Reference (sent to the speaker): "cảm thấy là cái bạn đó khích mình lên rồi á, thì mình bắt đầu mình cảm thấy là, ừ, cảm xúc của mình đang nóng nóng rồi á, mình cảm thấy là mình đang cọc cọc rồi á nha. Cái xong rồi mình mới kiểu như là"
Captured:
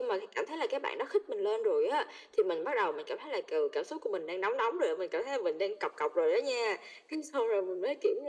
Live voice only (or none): none